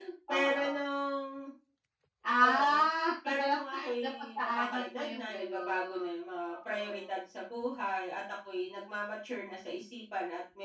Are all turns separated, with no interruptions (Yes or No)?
No